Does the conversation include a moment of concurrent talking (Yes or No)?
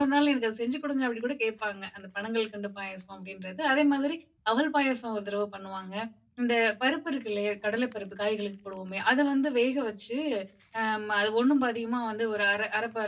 No